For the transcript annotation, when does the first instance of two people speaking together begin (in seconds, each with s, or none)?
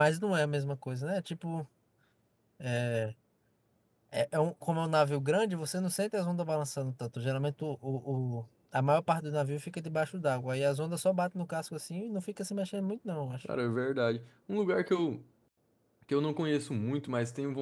none